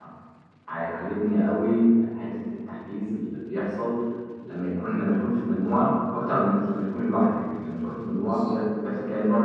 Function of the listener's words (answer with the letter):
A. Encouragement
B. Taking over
A